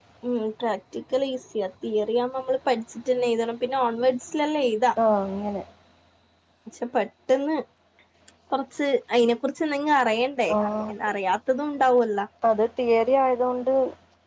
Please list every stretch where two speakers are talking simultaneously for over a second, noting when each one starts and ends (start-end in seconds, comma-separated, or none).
none